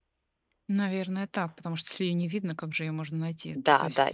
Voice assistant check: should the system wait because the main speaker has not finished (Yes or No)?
No